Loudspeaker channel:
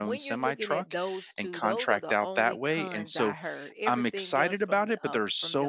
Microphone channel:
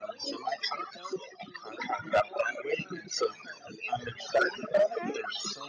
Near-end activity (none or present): present